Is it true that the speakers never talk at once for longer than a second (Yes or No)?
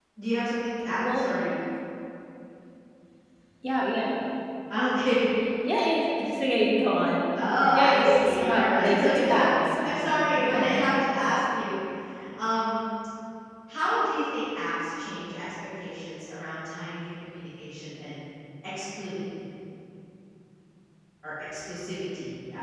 No